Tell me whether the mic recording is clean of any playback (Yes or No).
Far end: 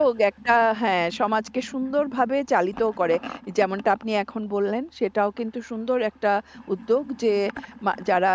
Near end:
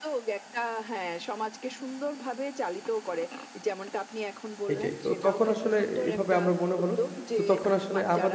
No